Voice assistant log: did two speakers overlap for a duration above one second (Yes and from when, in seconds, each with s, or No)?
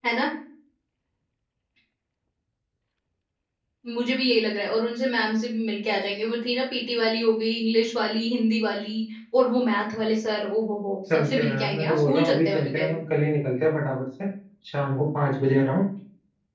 Yes, from 11.1 s